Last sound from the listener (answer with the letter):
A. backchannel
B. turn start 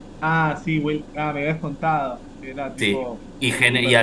B